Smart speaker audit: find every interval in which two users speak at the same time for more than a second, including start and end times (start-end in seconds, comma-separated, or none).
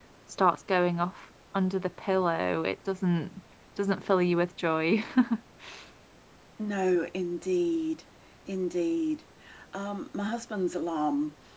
none